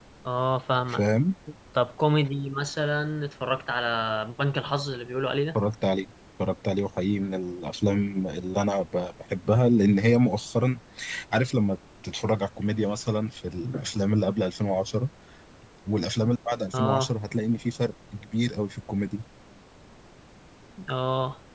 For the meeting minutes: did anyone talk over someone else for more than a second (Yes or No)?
No